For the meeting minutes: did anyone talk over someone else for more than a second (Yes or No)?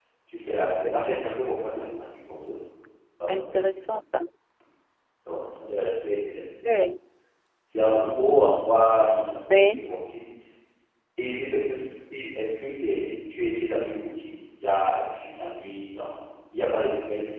No